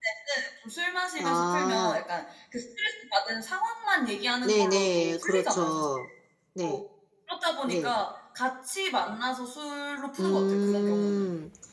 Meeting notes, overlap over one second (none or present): present